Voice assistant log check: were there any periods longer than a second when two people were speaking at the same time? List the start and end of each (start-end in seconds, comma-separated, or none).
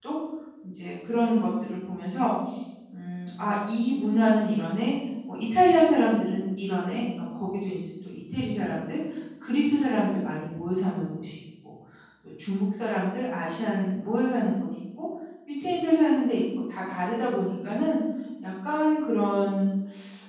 none